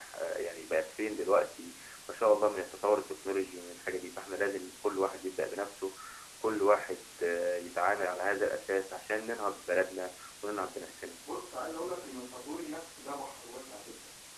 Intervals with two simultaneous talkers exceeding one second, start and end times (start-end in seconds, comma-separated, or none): none